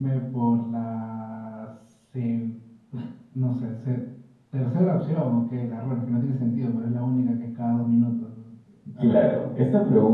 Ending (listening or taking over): taking over